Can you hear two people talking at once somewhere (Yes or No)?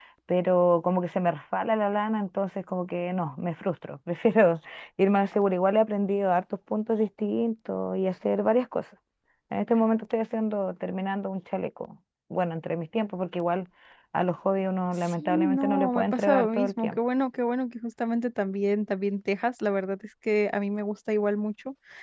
Yes